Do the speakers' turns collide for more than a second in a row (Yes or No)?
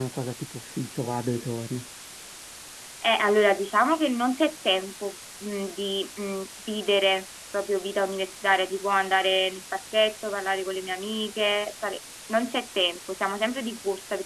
No